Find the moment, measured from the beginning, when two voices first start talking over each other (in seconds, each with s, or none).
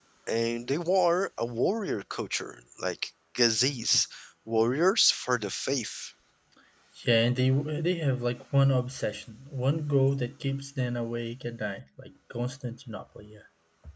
none